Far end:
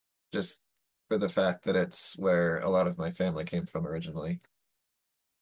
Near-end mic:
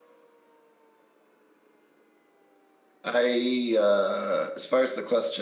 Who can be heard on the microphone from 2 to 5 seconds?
user only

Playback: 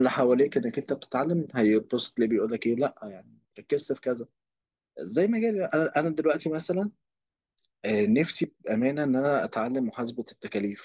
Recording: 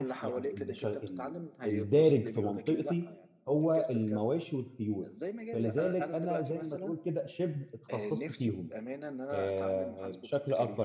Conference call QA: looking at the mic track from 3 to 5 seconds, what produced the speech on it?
both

